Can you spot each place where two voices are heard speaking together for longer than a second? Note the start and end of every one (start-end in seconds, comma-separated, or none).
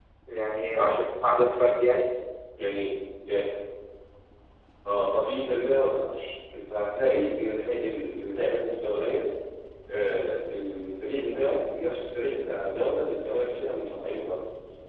none